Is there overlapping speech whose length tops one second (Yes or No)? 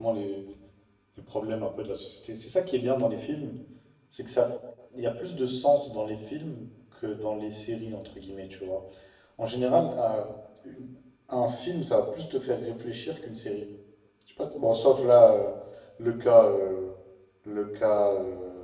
No